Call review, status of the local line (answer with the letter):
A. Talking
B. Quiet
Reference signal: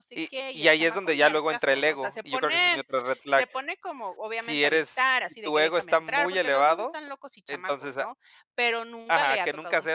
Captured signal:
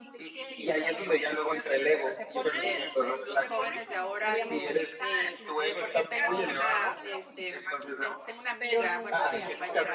A